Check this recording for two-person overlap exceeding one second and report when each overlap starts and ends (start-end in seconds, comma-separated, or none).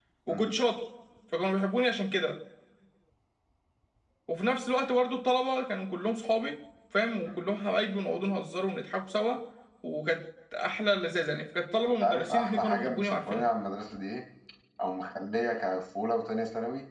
12.0-13.4